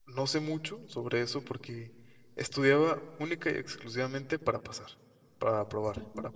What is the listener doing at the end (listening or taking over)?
listening